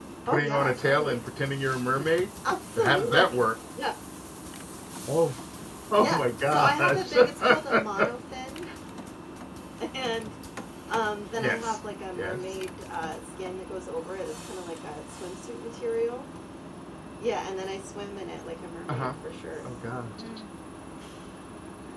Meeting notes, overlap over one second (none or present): present